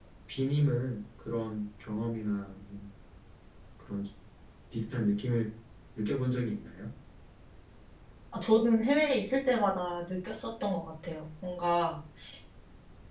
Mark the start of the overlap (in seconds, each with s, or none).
none